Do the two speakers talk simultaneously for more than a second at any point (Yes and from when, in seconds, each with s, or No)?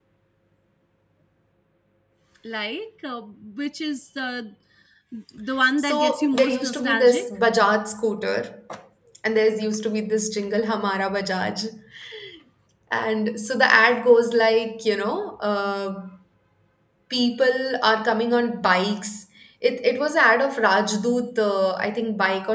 Yes, from 5.8 s